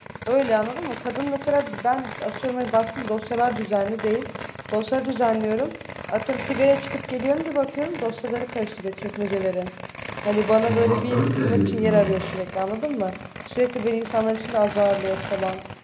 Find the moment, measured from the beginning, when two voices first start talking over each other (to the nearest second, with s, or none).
11 s